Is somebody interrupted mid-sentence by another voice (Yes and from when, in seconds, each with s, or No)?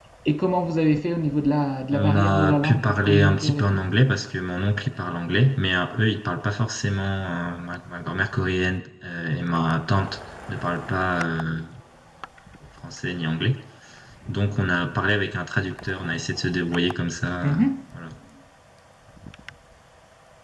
Yes, from 1.9 s